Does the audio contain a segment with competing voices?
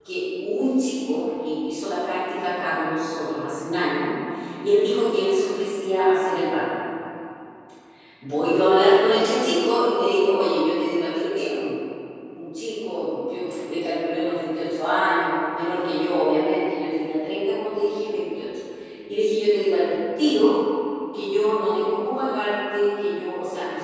No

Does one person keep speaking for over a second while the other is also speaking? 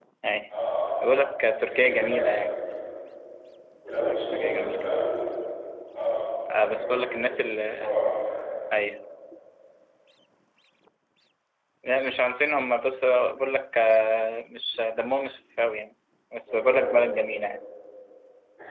Yes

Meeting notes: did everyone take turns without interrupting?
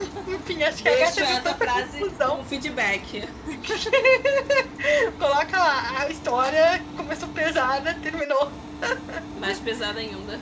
No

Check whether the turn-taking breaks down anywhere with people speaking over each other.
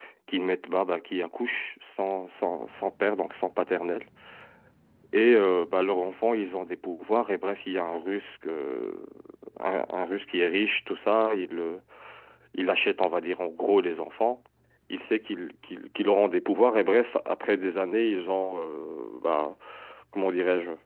No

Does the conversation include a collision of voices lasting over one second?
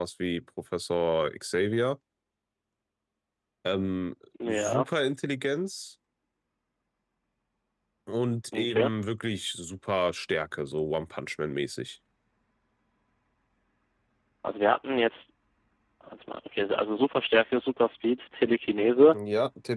No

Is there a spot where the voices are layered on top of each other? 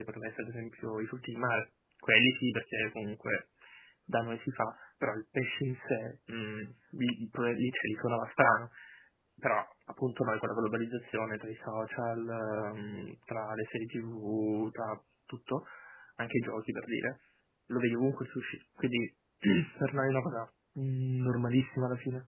No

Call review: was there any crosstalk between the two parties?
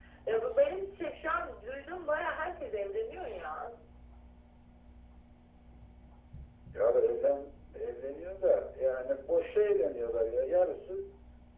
No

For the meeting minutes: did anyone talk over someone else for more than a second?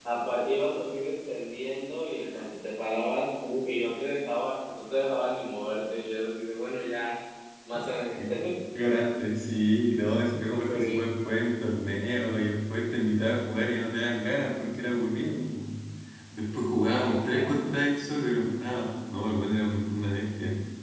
No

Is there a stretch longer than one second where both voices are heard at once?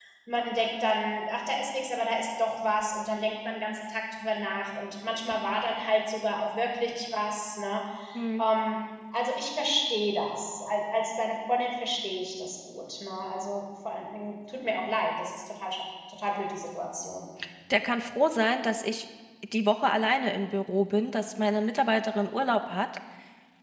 No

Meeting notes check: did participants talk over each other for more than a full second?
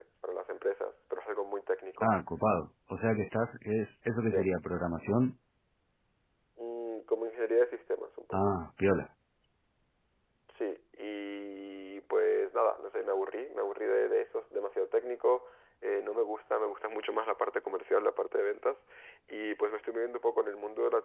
No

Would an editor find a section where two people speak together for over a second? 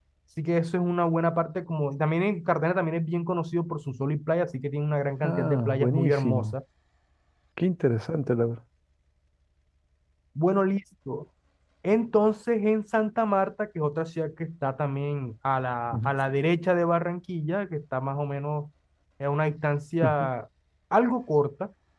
Yes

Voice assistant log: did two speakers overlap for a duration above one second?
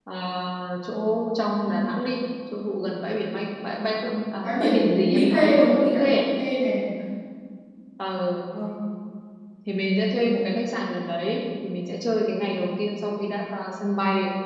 Yes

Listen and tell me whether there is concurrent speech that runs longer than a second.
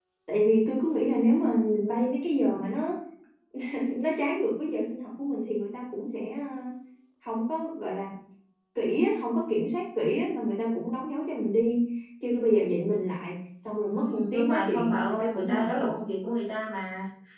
Yes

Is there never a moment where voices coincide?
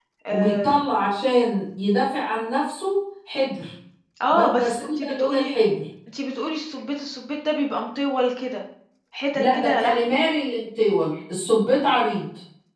No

